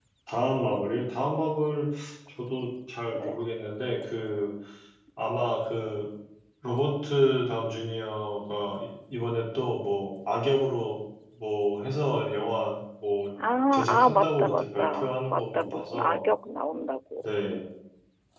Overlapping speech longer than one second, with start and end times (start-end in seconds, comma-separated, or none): 13.9-16.2